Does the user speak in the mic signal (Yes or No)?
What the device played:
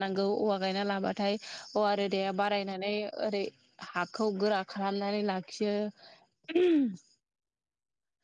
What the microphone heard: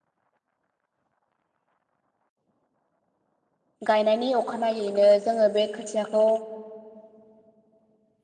Yes